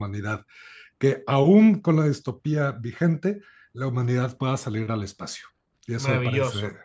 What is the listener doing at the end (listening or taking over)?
taking over